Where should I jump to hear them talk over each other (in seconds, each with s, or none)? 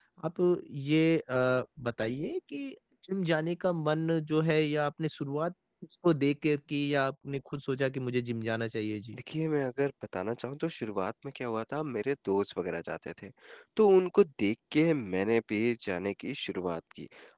none